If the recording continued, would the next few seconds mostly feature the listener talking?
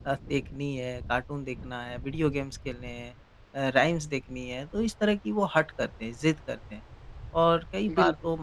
No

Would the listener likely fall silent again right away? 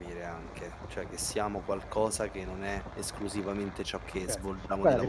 No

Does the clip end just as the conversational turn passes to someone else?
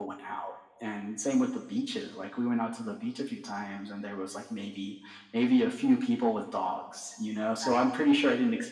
No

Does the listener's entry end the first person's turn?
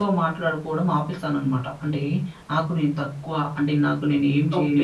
Yes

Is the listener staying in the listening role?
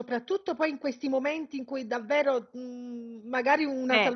Yes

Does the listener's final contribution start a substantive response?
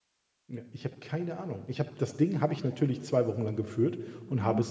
No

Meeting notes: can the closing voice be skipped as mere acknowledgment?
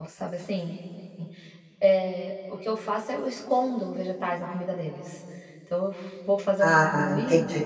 Yes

